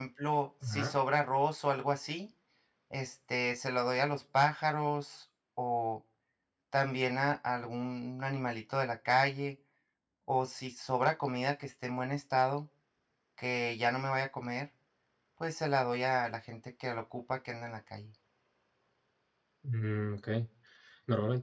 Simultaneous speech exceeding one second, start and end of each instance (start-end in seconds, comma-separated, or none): none